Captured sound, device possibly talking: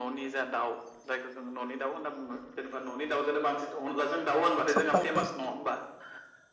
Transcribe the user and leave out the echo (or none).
सबाय ओंख्रि